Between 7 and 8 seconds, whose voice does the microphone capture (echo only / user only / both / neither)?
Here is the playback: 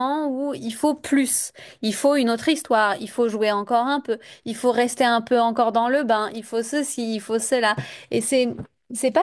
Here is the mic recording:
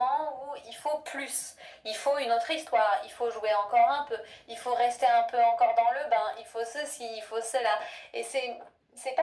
echo only